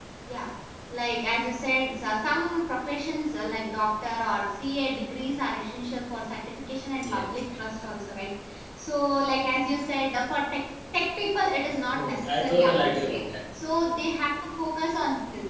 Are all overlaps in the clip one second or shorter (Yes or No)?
No